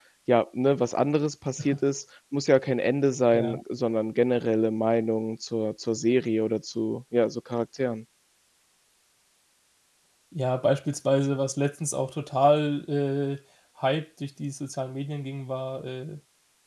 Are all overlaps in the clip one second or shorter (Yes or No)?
Yes